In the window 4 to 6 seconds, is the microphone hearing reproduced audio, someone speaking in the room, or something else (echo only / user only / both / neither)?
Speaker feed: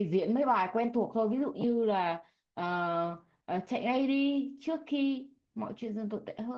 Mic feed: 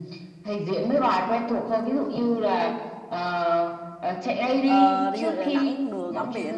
both